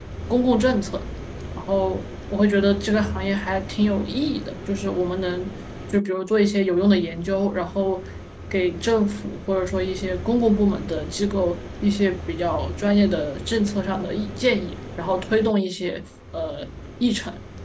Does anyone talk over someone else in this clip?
No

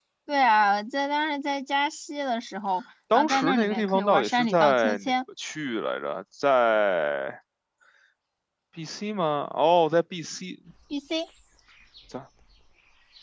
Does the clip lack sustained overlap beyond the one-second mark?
No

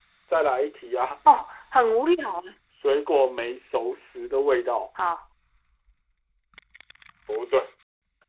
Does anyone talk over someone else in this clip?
No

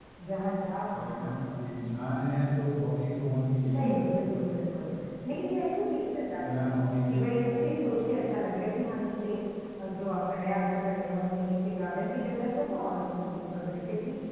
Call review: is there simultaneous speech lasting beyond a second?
No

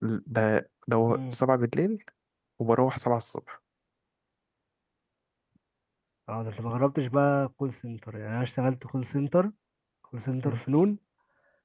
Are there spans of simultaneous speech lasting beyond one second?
No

